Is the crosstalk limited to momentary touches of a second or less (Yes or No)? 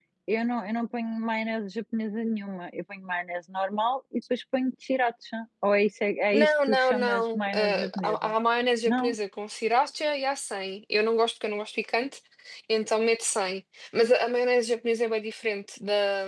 No